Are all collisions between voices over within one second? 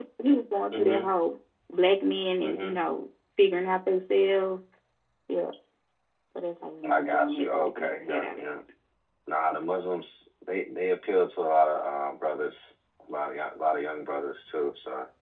No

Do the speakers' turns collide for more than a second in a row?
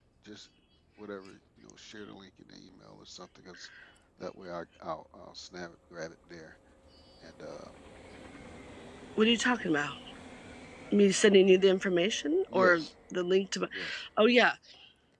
No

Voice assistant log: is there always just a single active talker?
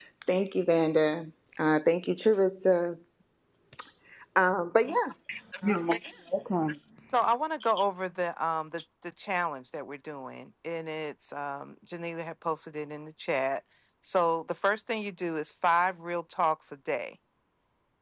Yes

